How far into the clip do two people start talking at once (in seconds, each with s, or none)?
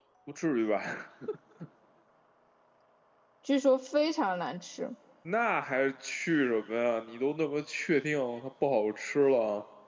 none